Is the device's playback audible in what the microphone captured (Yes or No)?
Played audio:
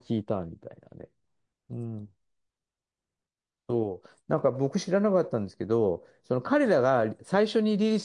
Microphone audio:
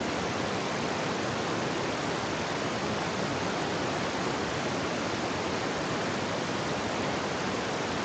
No